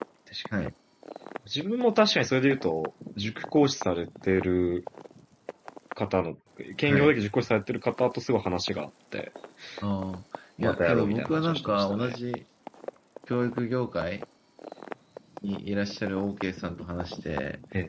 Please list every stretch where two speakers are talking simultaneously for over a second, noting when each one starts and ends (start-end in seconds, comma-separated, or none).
10.6-12.2